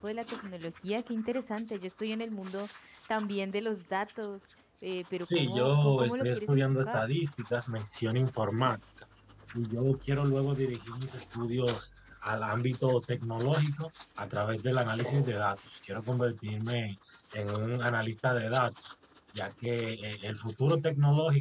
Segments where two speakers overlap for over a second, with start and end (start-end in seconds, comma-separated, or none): 5.2-7.0